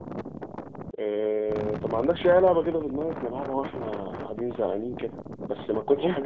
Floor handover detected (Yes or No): No